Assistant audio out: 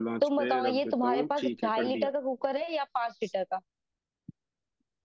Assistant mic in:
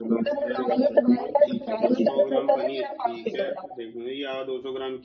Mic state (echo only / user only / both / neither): both